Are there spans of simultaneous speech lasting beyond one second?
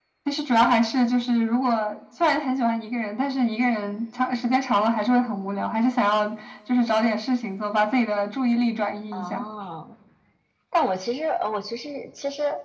No

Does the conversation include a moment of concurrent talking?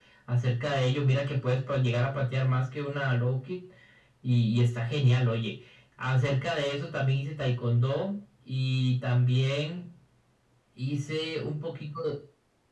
No

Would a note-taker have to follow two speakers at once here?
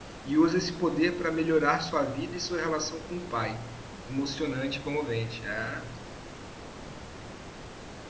No

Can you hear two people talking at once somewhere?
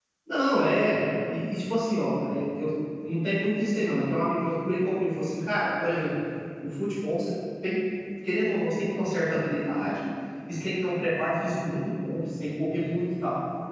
No

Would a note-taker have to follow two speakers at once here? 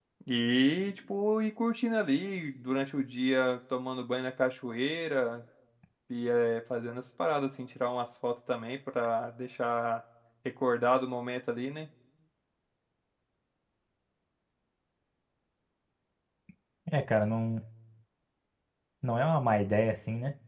No

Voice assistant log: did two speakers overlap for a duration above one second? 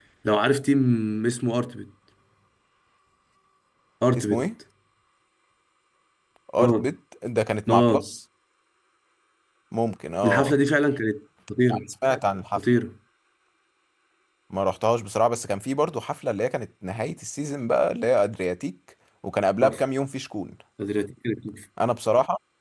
No

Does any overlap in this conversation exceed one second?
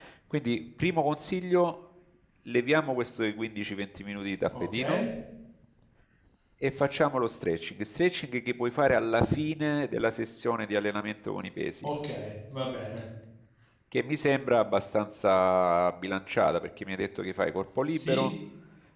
No

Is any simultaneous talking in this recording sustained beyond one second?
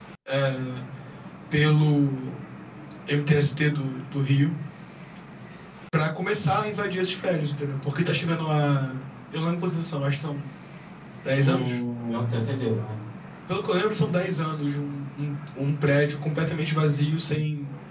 No

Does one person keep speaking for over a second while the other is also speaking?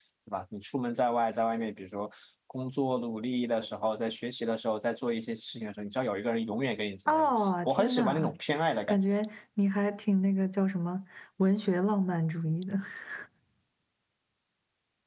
Yes, from 7.1 s

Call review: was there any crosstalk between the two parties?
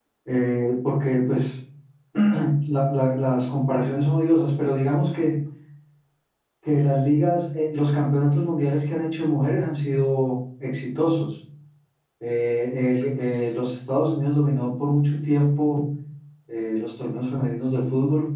No

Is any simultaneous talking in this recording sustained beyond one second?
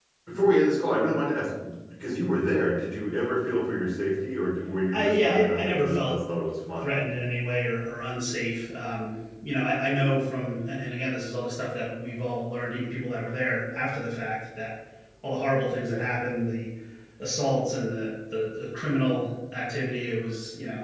Yes, from 4.9 s

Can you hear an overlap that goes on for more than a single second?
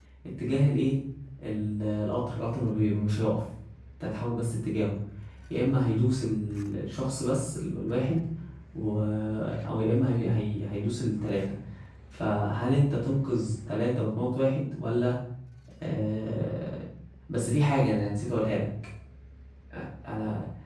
No

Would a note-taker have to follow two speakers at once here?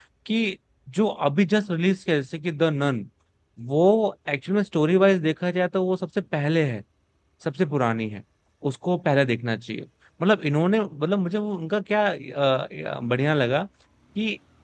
No

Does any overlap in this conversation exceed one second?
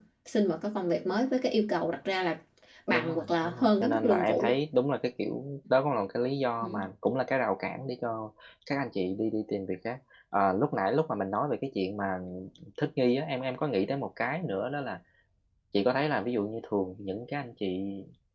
Yes, from 2.9 s

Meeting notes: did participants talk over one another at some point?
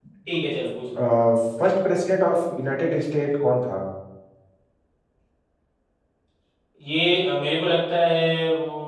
No

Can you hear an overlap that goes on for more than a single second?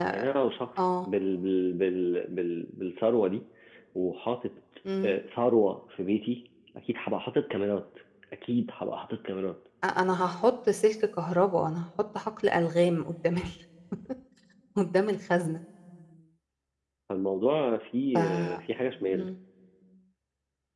No

